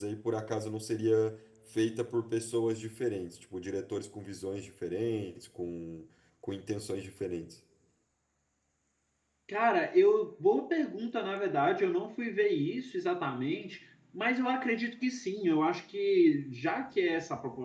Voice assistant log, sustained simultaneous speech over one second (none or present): none